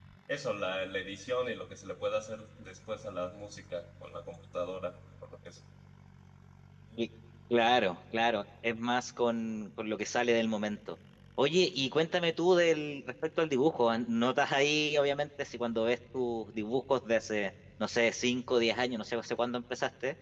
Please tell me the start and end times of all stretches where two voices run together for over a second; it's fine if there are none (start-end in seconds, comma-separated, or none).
none